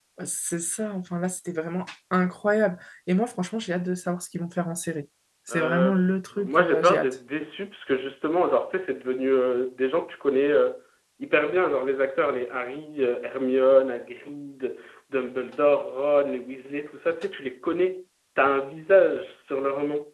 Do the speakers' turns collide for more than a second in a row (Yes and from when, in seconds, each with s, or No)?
Yes, from 5.5 s